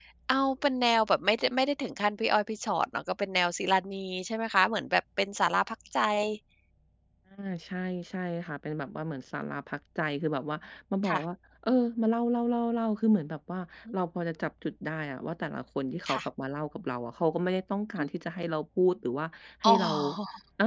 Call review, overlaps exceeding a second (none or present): none